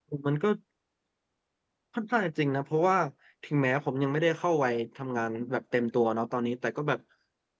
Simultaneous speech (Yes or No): No